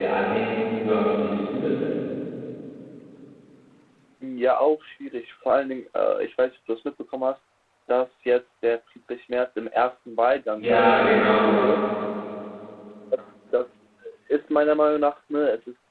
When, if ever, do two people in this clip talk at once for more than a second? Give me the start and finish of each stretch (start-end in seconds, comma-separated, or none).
10.6-11.8